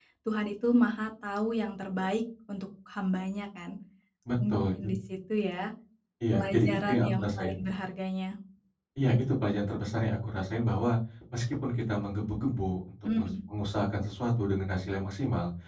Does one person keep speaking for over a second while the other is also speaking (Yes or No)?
Yes